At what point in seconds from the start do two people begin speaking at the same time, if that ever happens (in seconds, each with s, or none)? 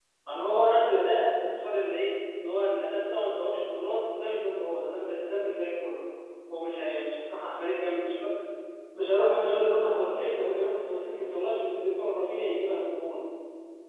9.8 s